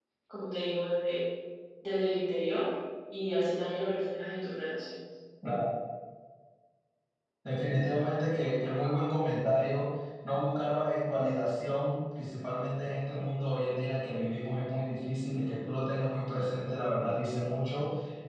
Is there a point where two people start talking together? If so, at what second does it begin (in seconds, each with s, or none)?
none